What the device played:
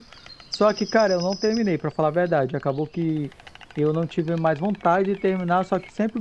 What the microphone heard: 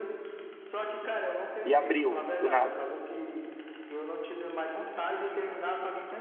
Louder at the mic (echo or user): user